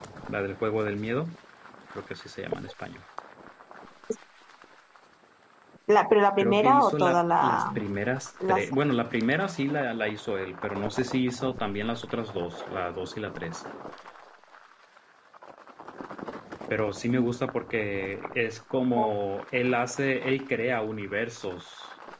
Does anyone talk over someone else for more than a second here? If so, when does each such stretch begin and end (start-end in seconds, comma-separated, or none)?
6.4-7.6